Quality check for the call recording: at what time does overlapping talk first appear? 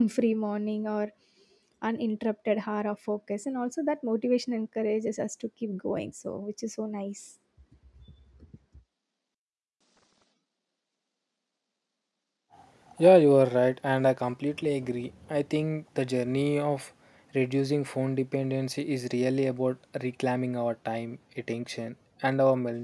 none

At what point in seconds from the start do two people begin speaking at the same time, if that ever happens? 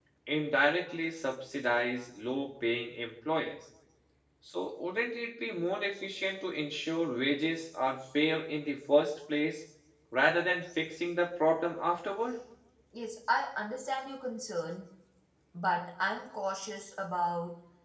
none

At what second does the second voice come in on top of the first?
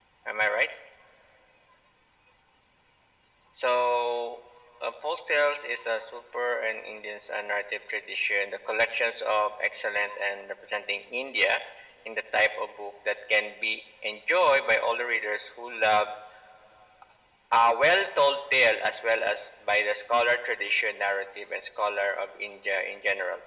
none

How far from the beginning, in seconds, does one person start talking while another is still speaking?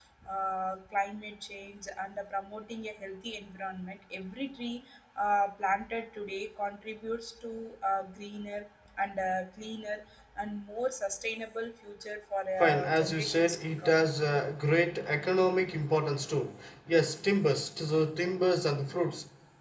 12.6 s

